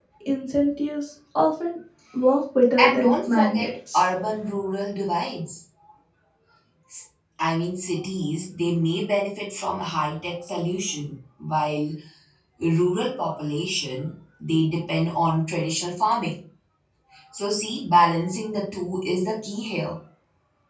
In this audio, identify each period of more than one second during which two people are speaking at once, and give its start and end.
2.8-4.0

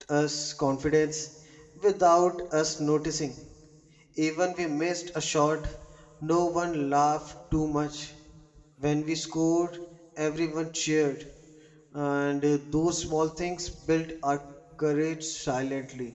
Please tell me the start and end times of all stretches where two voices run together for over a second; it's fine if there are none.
none

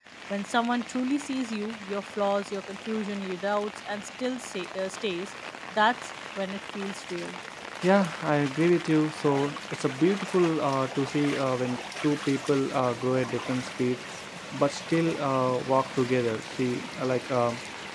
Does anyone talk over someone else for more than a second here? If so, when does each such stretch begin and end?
none

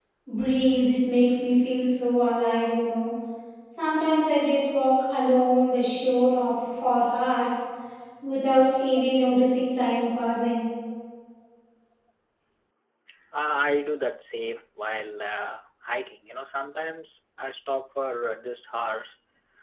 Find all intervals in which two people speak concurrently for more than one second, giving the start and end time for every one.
none

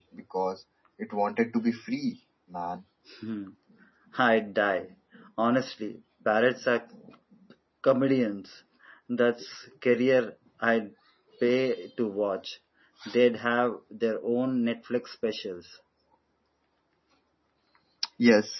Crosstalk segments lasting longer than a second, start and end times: none

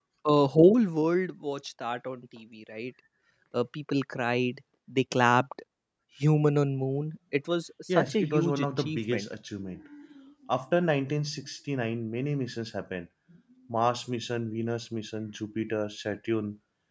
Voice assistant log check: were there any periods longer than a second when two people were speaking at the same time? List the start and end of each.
7.9-9.3

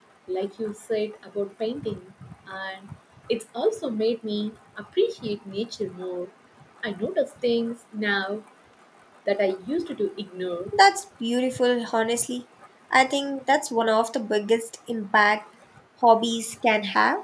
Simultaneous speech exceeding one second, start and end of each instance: none

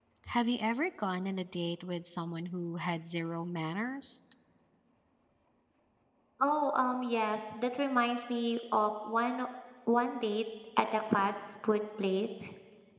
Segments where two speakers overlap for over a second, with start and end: none

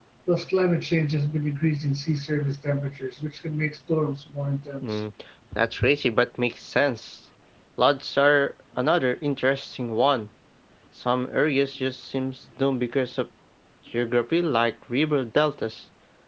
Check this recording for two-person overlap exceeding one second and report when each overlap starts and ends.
none

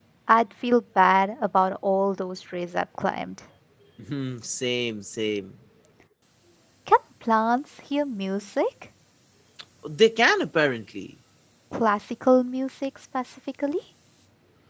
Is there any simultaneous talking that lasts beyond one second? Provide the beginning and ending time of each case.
none

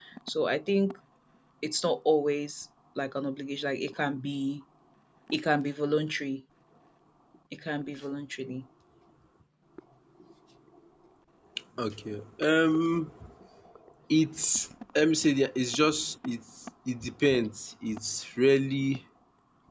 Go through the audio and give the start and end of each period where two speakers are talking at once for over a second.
none

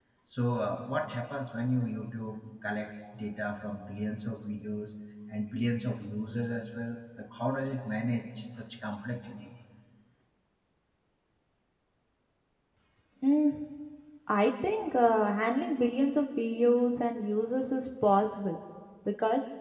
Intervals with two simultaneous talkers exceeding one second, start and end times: none

